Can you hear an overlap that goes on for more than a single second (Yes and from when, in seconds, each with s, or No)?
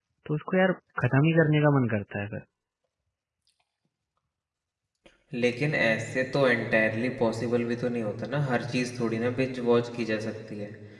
No